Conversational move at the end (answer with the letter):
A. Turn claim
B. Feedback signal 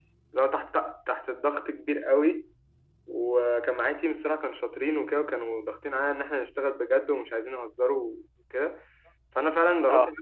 B